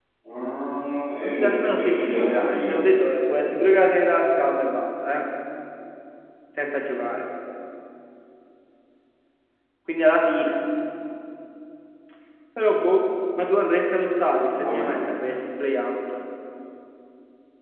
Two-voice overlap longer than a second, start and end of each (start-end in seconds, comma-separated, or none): 1.2-2.8